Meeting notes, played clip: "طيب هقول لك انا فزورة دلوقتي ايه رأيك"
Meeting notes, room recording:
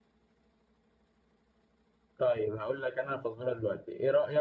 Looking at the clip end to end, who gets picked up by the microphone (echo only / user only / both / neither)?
echo only